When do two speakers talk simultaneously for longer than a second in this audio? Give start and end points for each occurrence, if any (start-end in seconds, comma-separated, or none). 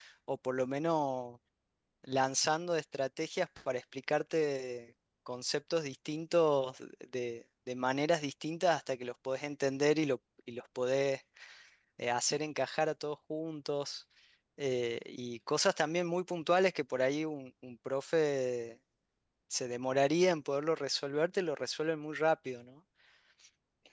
none